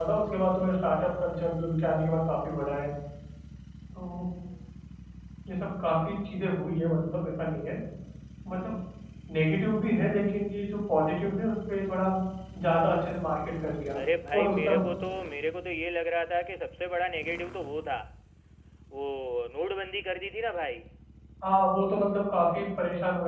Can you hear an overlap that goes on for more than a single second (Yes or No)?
No